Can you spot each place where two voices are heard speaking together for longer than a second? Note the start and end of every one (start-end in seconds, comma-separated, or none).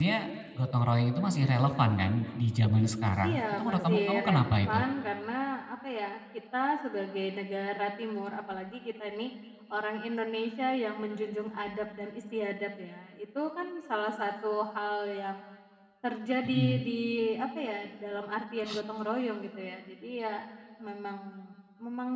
3.2-4.8